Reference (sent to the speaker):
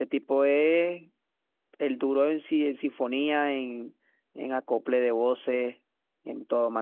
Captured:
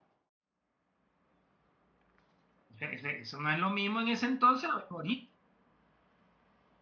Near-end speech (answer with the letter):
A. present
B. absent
A